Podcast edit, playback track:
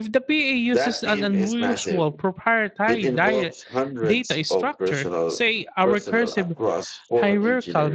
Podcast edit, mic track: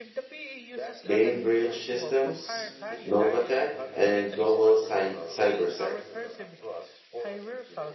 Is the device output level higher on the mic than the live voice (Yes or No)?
No